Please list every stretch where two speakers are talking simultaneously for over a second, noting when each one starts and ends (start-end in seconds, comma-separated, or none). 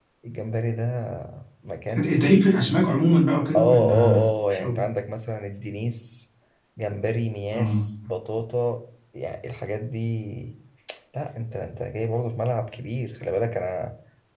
3.5-4.8